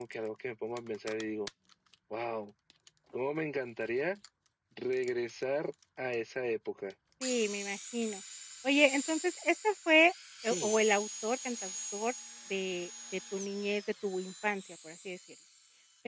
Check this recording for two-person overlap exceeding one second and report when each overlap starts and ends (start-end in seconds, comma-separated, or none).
none